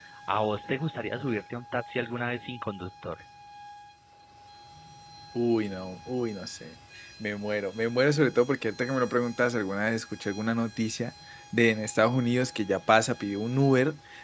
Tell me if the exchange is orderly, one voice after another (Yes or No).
Yes